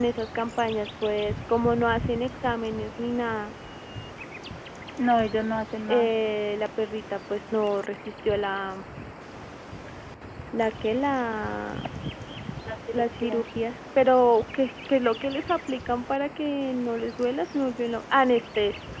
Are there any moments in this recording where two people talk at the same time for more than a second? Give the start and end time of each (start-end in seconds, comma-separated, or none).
none